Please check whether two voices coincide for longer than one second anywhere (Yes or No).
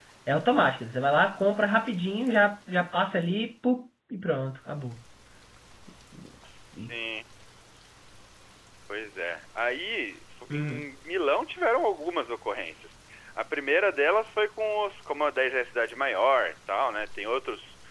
No